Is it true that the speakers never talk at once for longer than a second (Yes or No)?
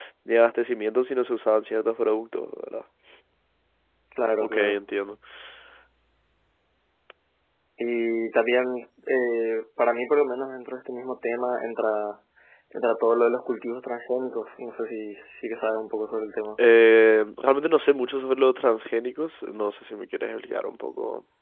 Yes